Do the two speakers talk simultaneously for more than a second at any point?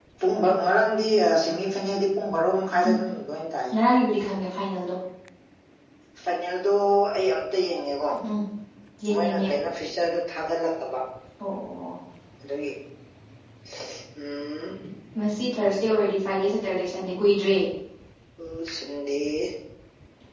No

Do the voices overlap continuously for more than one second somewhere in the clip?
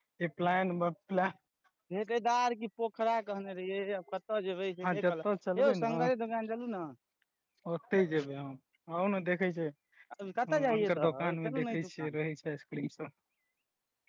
Yes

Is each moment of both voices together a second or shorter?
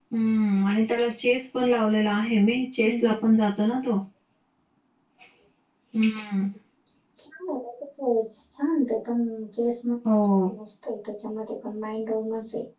Yes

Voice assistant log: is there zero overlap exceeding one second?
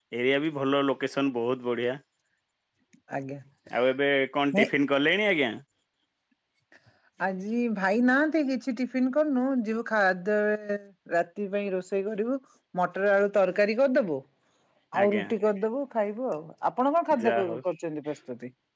Yes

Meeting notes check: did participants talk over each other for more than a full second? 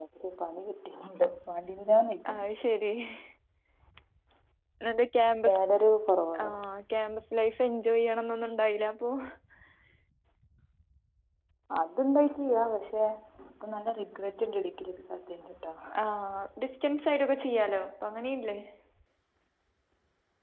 No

